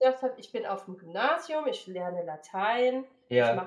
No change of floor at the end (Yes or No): Yes